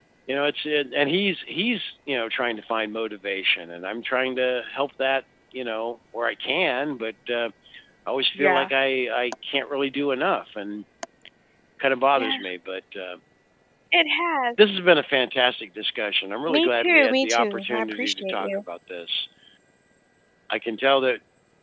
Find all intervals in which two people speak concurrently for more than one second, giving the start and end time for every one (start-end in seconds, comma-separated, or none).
16.5-18.6